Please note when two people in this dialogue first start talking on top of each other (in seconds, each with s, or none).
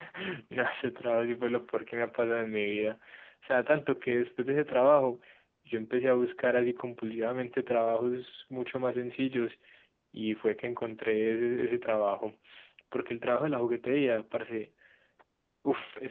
none